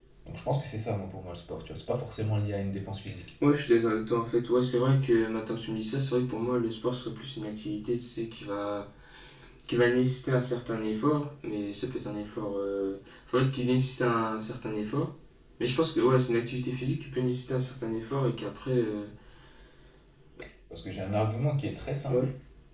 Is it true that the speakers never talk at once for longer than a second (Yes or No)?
Yes